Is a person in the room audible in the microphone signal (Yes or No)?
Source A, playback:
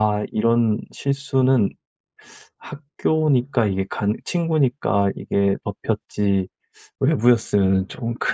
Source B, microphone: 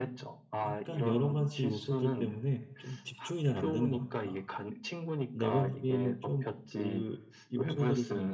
Yes